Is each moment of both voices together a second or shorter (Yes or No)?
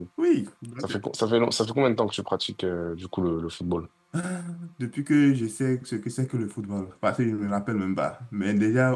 Yes